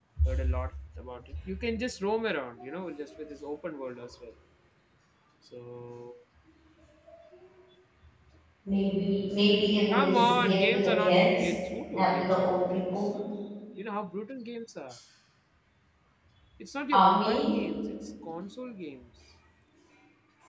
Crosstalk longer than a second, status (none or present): present